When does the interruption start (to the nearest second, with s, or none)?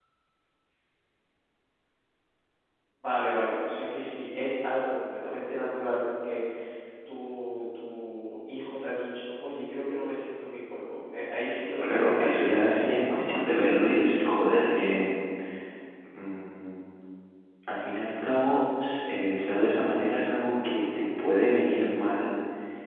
12 s